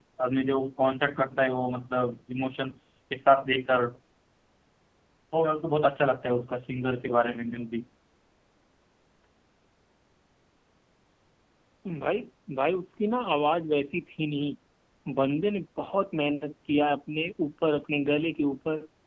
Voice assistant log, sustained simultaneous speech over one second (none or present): none